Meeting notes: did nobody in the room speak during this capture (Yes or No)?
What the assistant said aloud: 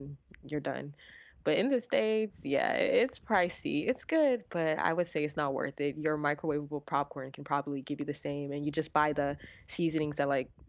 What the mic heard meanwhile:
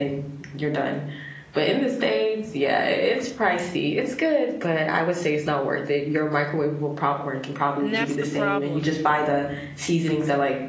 No